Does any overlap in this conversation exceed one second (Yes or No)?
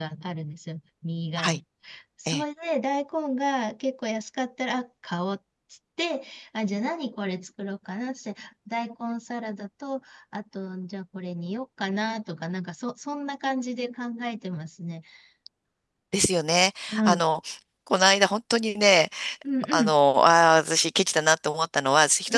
No